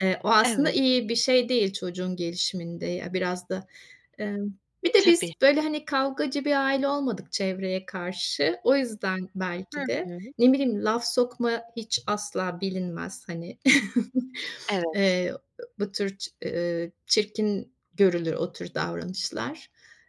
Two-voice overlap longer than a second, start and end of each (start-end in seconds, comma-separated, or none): none